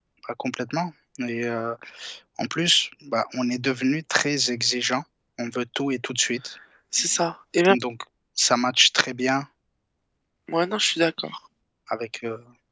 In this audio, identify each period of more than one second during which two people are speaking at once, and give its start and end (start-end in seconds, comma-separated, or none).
none